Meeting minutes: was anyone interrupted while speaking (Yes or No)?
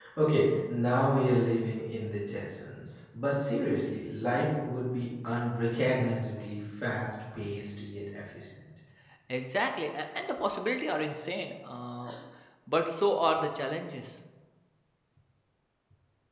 No